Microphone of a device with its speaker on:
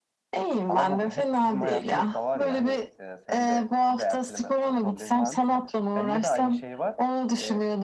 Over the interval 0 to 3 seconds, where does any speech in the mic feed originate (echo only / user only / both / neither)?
both